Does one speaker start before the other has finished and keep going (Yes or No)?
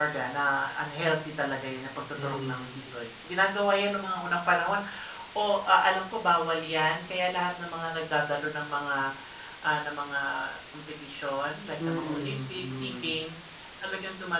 Yes